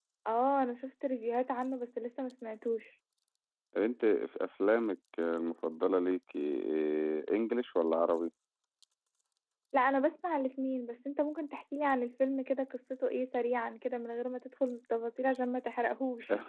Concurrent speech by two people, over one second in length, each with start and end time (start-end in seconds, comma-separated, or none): none